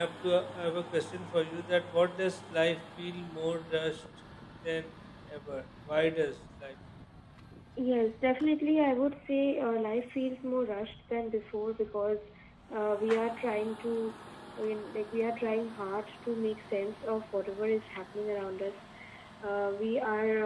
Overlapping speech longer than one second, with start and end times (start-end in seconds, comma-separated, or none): none